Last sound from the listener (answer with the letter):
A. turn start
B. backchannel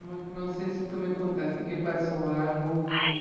A